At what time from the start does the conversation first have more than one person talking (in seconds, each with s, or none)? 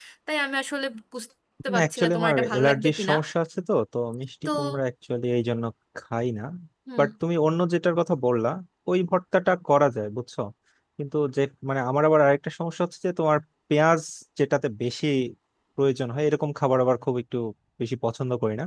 1.7 s